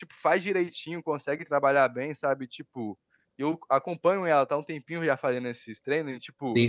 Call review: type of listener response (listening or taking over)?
listening